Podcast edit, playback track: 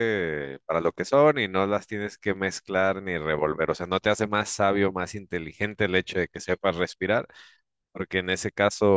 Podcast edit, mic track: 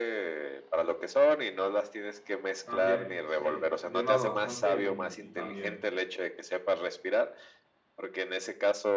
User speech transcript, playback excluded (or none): también, sí. Yo nado bastante y, y también.